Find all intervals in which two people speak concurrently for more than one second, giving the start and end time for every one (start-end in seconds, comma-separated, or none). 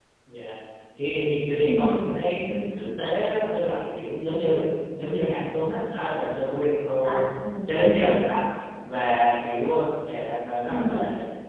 none